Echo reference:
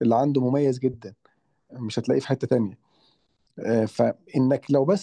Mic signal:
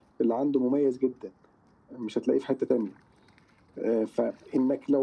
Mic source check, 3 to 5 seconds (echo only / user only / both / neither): echo only